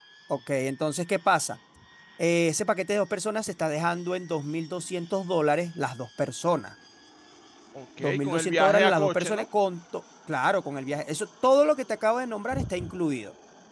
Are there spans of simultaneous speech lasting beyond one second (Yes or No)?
Yes